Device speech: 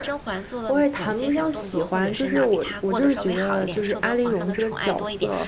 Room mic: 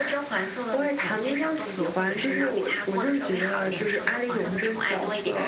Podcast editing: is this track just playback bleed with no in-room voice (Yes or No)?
Yes